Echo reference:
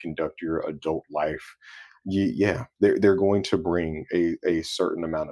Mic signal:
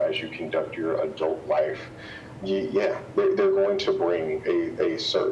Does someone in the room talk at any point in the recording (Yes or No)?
No